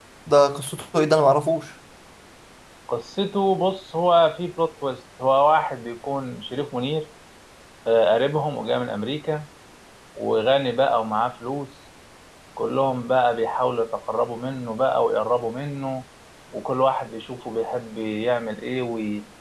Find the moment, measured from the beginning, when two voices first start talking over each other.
none

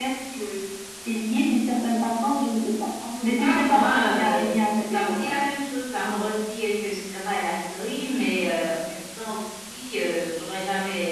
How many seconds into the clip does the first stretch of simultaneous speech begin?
3.0 s

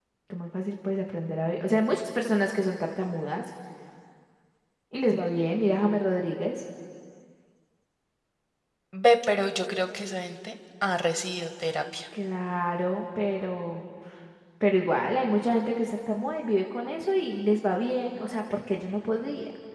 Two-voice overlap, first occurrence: none

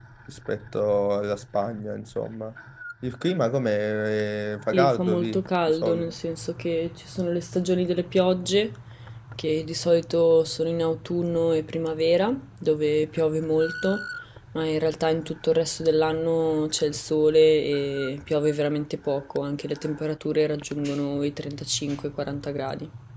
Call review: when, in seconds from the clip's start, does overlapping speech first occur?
4.7 s

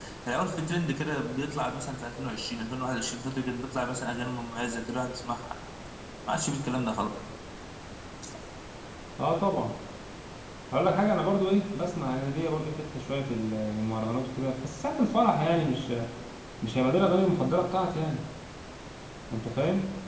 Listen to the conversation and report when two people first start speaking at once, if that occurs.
none

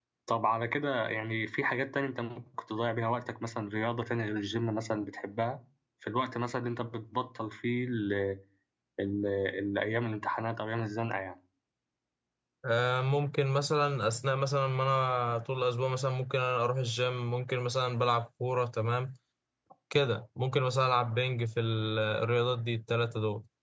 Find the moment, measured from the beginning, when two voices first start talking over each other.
none

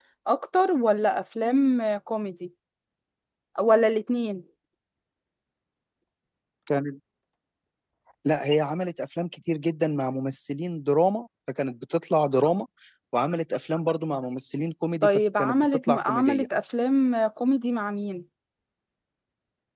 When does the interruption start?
15.0 s

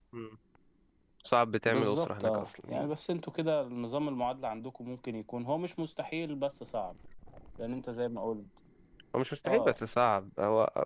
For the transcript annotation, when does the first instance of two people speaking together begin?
1.7 s

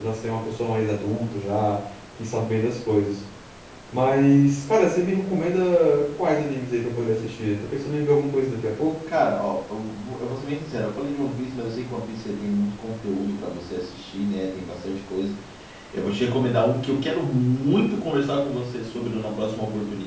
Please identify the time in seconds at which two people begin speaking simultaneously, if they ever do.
none

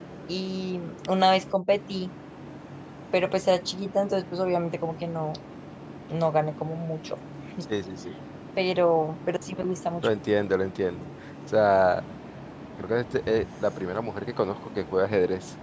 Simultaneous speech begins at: none

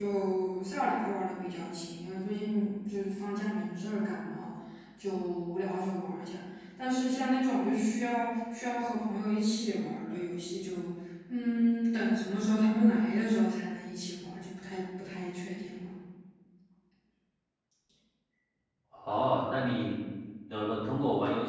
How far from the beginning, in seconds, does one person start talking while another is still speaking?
none

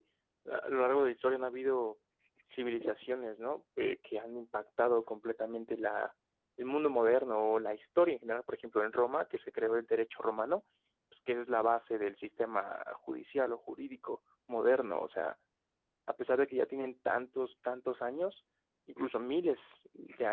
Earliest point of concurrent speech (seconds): none

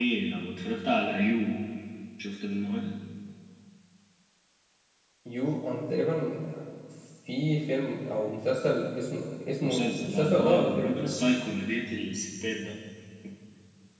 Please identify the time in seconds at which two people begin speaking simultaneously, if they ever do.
9.6 s

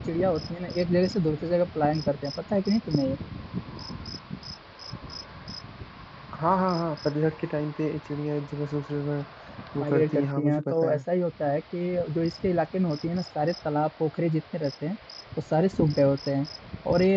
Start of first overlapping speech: 9.8 s

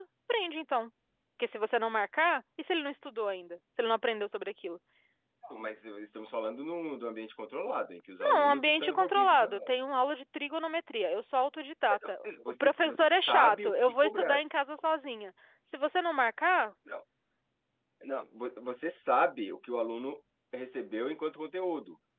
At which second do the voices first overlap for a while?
8.2 s

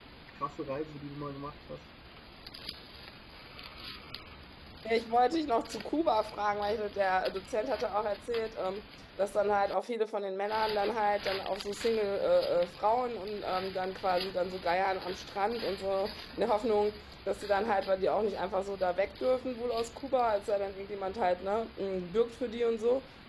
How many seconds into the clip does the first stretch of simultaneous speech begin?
none

